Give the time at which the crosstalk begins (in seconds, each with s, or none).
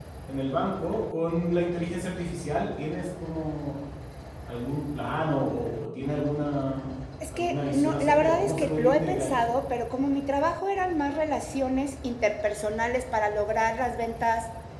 7.2 s